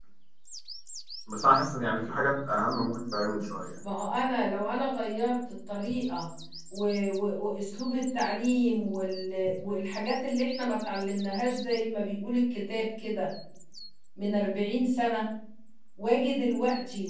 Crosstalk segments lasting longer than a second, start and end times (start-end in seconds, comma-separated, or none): none